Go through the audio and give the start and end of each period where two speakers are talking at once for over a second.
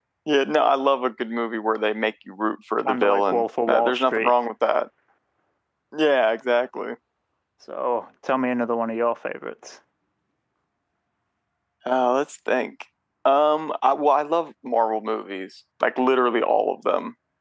2.8-4.3

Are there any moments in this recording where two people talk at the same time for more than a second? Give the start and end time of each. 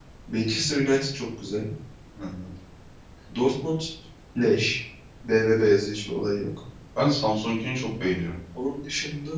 none

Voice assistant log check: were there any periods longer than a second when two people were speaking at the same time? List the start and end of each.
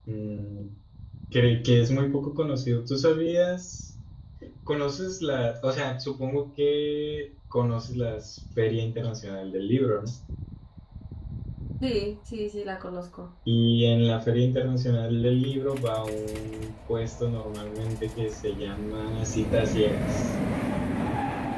none

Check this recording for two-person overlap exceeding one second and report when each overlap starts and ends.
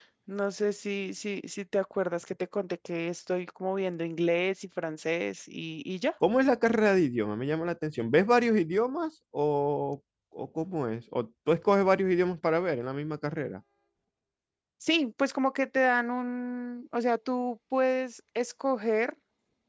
none

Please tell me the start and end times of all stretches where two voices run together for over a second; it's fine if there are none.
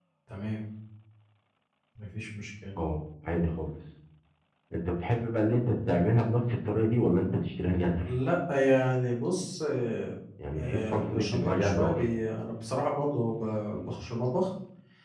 10.6-12.1

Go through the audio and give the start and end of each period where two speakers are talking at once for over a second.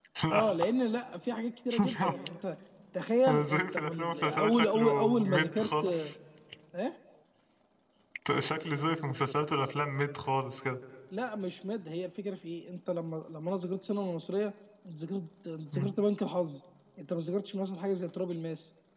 3.3-5.8

